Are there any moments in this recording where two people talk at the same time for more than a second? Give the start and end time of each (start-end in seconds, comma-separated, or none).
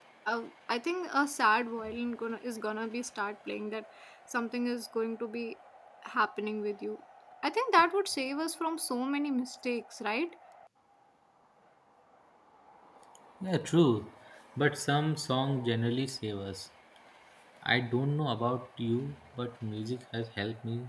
none